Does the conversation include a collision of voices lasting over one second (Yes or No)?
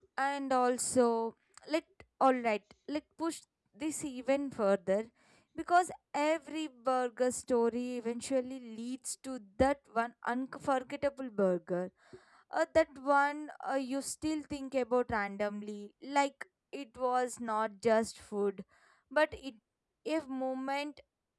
No